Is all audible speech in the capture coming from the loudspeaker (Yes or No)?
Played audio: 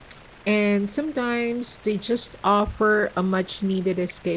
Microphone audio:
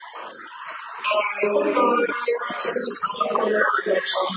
Yes